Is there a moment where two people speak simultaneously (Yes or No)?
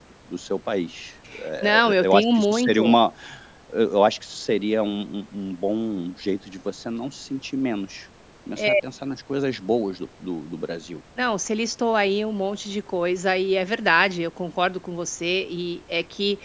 Yes